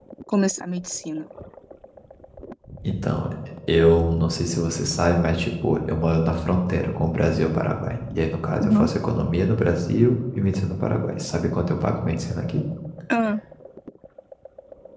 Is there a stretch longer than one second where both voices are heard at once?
No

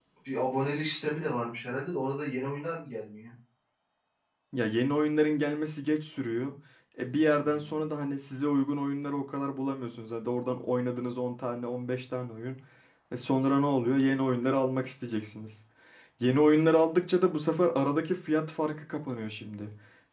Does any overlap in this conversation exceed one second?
No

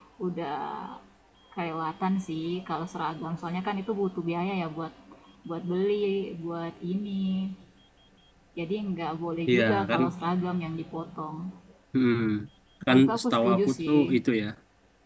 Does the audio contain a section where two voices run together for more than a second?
Yes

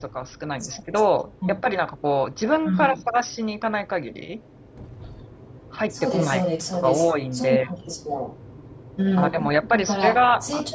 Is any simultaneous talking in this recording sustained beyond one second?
Yes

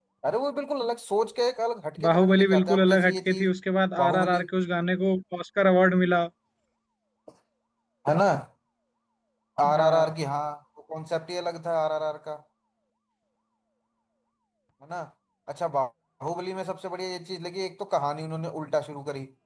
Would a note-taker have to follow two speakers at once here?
Yes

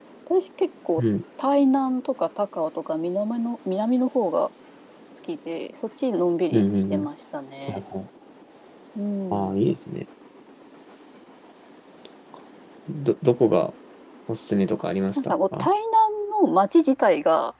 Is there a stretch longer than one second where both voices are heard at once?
No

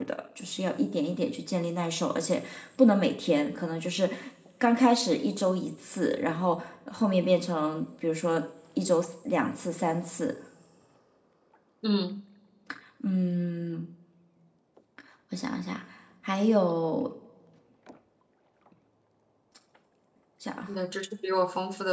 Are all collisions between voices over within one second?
Yes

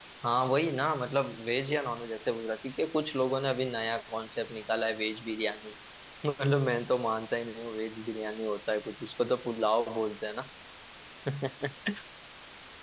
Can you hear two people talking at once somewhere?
No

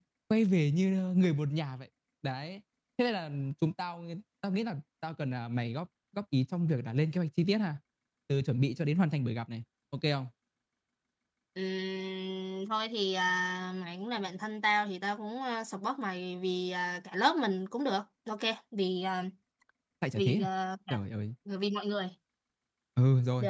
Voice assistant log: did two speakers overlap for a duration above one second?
No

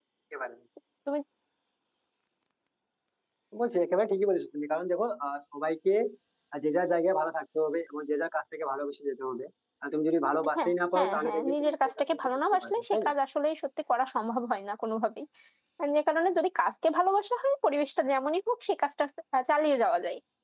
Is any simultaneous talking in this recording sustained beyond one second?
Yes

